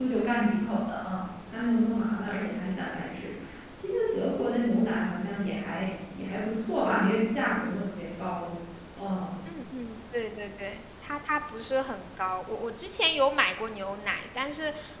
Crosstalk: none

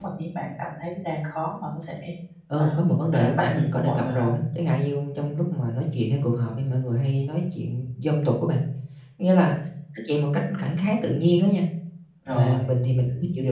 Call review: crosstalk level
present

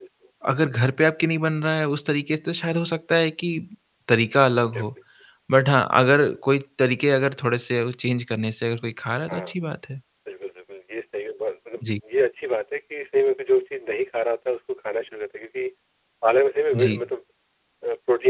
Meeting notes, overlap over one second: none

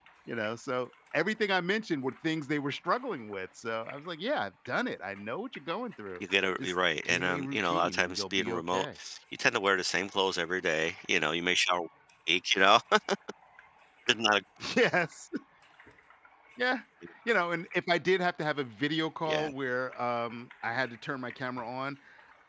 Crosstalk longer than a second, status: present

